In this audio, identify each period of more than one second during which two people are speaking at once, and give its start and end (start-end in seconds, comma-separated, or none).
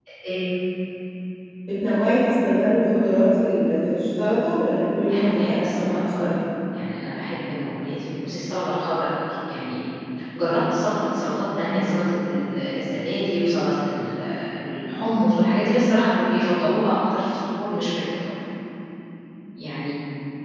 5.1-6.3